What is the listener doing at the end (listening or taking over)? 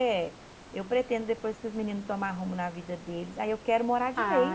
taking over